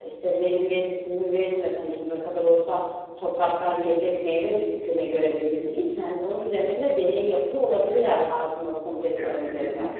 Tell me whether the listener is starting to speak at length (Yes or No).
Yes